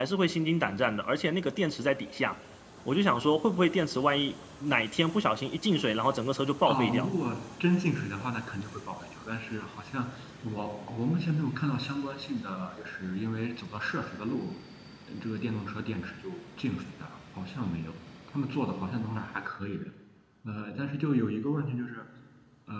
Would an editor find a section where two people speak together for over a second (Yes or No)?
No